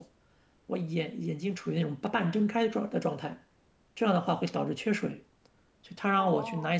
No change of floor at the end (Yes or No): Yes